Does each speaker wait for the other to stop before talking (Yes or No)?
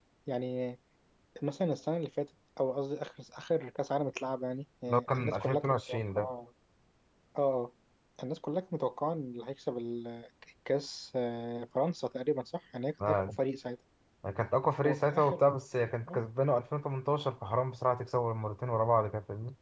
No